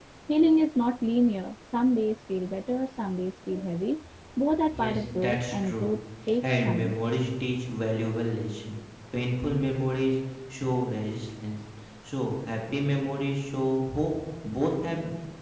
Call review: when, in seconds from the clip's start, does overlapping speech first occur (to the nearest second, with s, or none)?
5 s